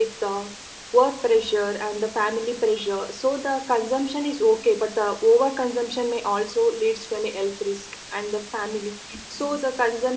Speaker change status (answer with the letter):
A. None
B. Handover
A